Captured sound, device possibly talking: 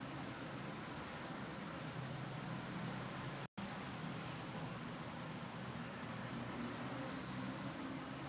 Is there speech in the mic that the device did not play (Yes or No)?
No